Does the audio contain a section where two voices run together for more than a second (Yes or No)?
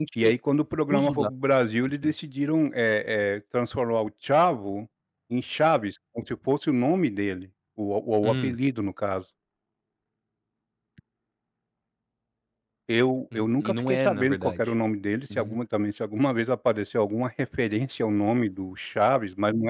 Yes